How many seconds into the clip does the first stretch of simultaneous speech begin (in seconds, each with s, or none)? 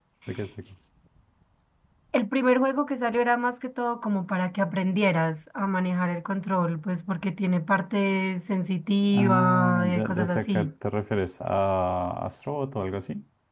9.1 s